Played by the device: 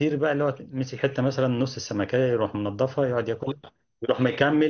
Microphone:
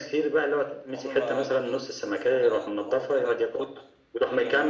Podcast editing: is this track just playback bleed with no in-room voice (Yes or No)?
No